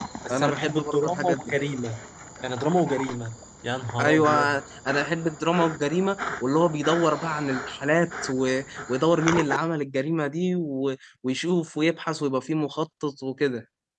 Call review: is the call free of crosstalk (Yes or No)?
No